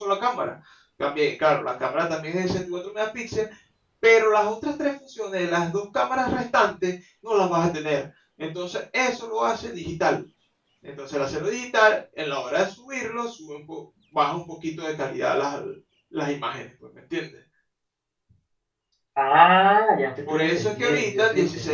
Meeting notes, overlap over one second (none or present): present